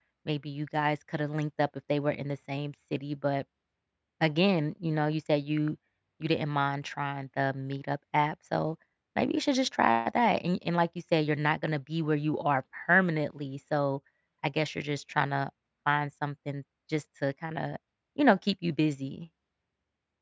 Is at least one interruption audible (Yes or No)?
No